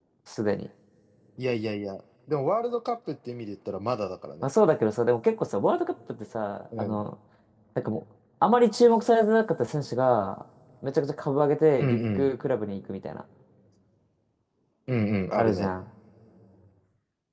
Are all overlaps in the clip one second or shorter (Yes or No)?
Yes